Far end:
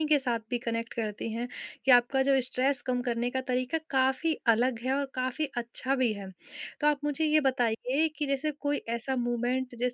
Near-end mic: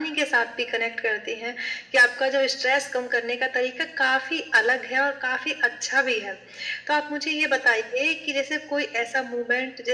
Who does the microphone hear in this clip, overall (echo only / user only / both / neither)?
echo only